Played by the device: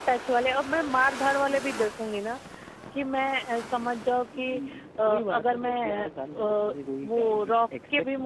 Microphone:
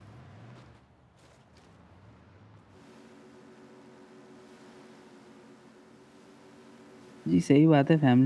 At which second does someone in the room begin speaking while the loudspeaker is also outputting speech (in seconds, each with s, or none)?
7.3 s